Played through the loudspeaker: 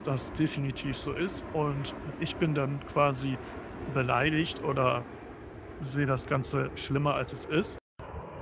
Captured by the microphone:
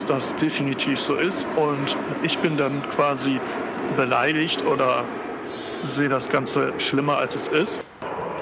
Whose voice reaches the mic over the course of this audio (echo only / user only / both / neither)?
echo only